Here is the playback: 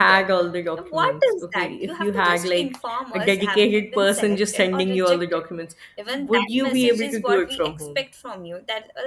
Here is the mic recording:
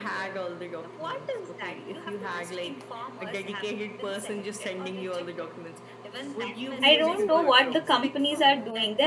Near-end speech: present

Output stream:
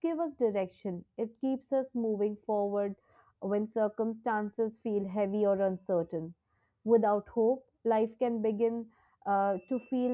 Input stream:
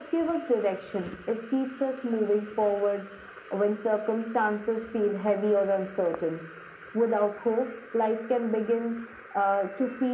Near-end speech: none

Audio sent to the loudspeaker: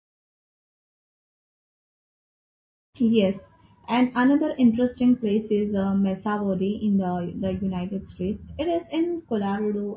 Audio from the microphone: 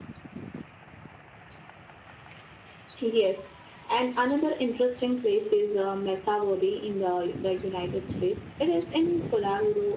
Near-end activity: none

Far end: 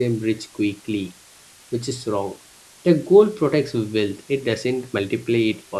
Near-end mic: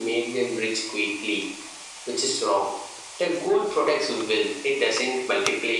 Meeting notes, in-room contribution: none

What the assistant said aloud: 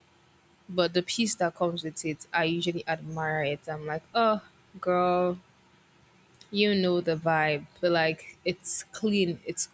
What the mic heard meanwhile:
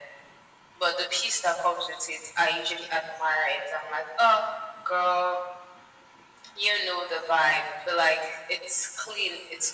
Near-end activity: none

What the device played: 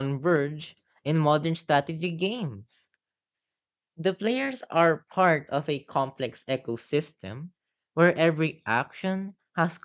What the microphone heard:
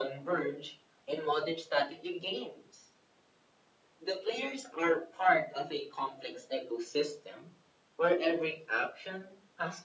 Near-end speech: none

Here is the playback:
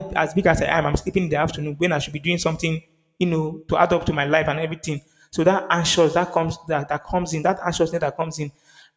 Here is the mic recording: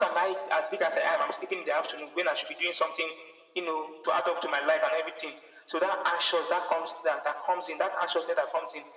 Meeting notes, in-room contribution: none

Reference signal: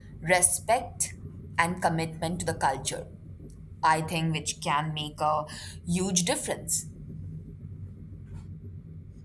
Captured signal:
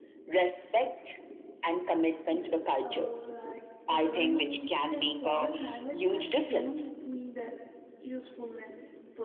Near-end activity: present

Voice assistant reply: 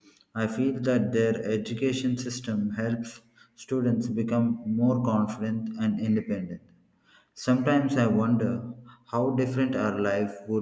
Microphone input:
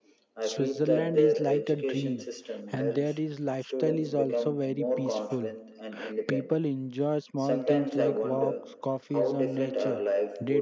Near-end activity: present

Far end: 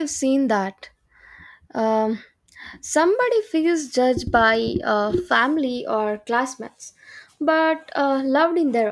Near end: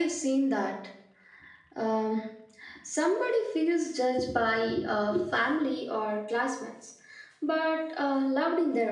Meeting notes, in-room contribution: none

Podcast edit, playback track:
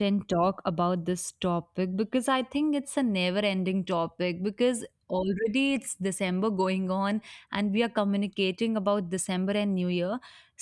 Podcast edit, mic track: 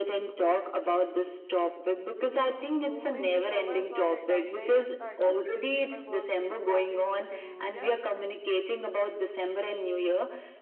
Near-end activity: present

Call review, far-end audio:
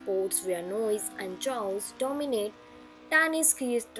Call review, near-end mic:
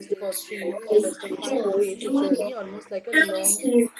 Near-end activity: present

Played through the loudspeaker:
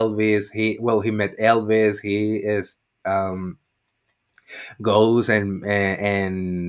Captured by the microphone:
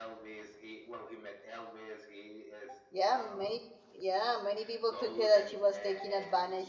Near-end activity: present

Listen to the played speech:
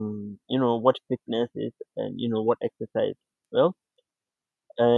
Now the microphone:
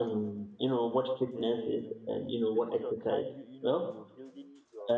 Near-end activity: present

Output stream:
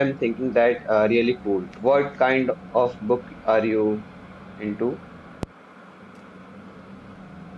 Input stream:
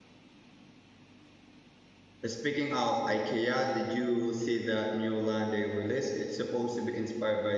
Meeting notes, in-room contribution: present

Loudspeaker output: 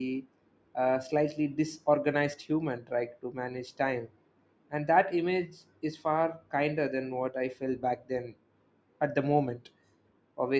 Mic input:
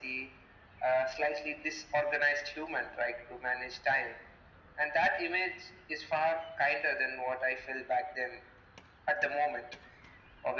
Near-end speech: none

